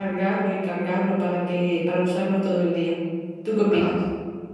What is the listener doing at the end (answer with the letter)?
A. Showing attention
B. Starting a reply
B